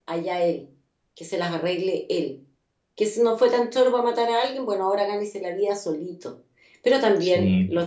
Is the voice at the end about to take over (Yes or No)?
No